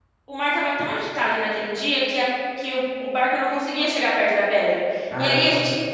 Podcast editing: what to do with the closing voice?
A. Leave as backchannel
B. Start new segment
A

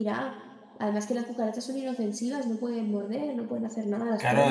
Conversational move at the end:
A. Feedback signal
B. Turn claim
B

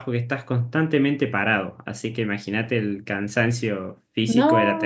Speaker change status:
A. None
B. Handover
B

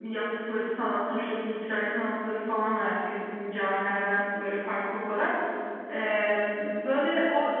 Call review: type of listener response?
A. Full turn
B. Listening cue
B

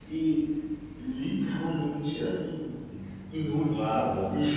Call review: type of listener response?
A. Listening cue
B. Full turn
A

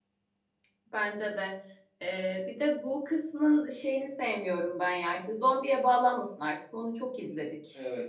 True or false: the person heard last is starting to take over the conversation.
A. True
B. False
A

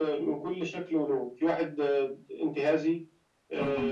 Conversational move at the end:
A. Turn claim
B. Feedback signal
B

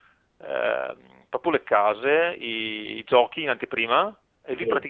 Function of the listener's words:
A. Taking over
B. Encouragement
B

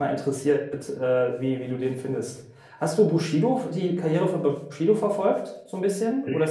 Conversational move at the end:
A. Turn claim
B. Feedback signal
A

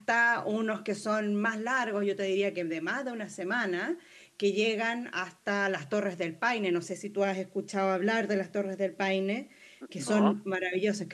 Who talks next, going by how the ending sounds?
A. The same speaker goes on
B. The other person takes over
A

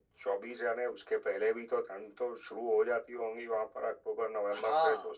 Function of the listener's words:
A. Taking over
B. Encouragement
A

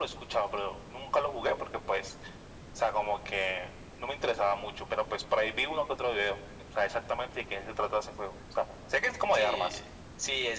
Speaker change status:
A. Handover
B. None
A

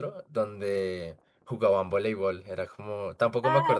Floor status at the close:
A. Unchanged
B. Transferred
B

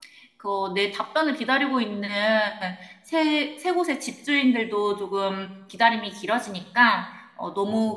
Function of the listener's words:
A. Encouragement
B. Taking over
A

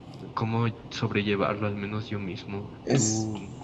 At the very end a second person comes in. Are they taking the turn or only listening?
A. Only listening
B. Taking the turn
A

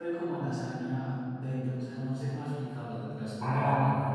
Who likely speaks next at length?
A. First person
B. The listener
B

